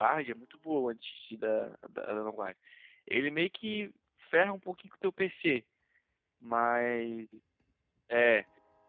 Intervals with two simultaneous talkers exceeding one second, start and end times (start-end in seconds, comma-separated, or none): none